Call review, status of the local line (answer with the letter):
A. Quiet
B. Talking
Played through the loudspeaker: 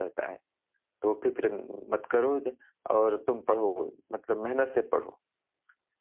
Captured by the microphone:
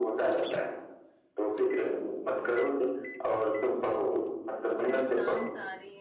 B